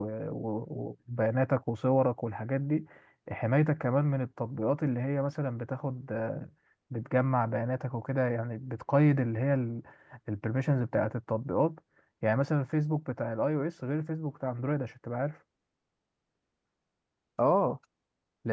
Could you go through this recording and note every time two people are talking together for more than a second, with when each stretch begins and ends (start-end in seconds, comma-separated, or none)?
none